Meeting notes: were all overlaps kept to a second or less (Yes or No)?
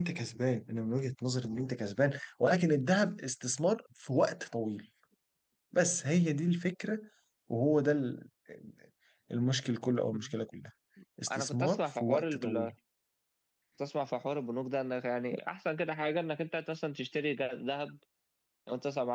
No